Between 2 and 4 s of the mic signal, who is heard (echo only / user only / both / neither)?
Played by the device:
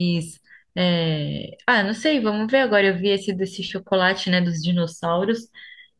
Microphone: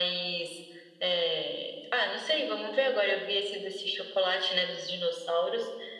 echo only